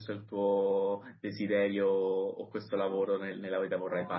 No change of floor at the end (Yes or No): Yes